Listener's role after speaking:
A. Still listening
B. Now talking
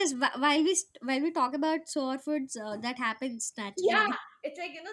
B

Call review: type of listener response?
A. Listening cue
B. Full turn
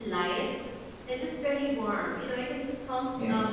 A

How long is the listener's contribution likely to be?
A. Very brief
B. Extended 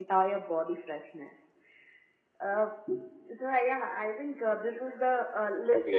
A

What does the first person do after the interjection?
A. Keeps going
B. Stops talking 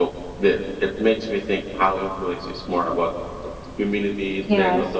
B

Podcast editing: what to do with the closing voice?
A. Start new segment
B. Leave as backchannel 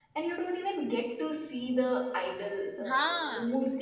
B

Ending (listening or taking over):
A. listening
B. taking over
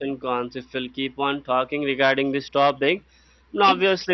A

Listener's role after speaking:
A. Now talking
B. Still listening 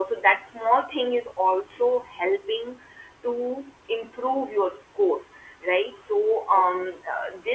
B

